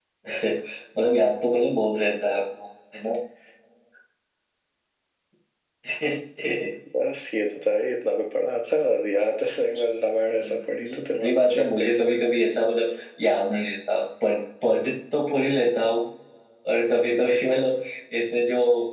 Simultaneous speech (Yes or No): Yes